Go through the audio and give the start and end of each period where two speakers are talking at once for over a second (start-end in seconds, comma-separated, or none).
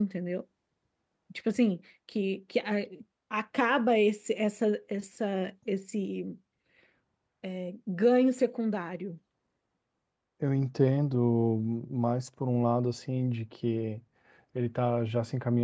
none